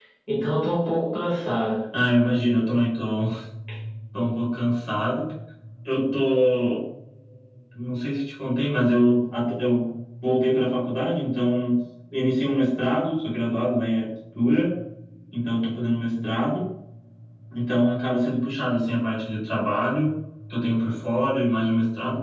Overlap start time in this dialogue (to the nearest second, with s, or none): none